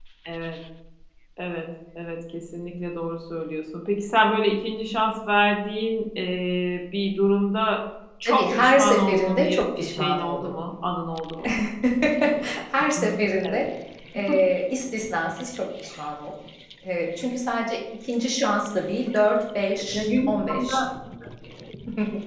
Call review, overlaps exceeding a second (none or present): present